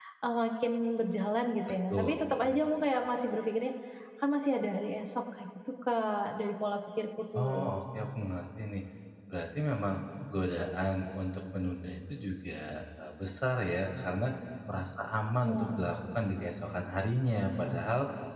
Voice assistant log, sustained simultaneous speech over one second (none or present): none